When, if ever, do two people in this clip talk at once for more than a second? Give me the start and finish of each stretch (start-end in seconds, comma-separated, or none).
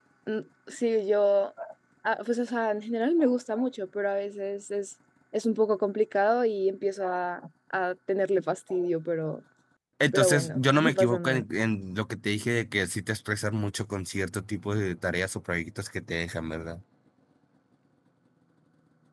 10.1-11.4